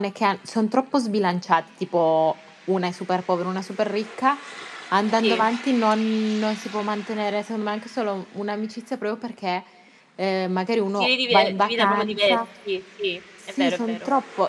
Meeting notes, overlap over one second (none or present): present